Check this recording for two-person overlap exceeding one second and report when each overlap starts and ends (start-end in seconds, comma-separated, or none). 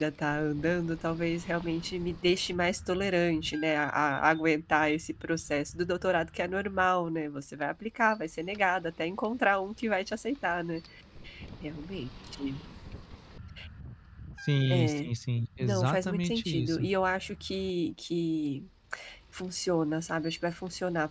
15.6-16.9